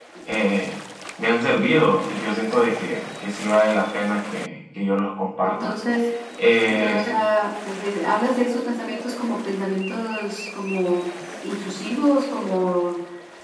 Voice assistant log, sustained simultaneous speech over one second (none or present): none